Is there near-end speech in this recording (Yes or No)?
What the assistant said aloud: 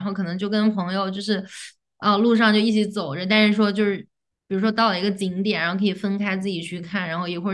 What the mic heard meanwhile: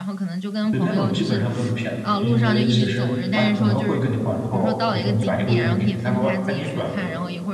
Yes